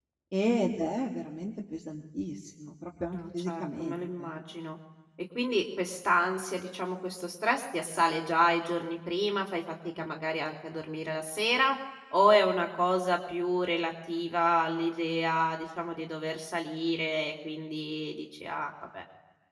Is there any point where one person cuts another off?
Yes, from 3.1 s

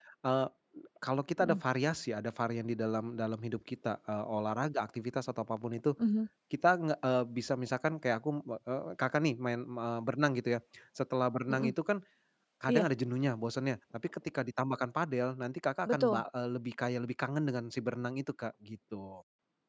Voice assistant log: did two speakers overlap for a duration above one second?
No

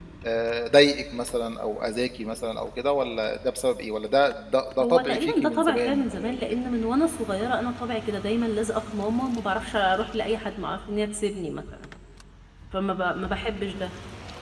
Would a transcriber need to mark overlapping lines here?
Yes, from 4.8 s

